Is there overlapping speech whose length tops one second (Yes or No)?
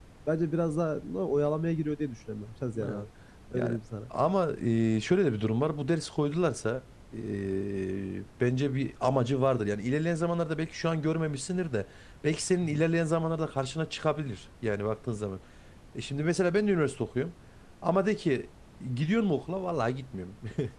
No